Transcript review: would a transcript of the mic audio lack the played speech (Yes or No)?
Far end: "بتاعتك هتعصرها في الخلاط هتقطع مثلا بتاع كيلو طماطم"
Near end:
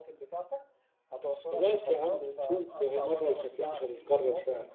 No